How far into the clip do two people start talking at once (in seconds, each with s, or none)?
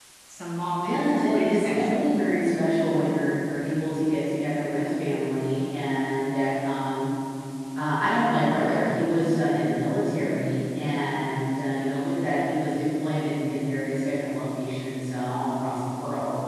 0.8 s